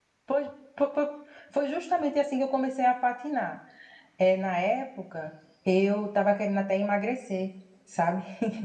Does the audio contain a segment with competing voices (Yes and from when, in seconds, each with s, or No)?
No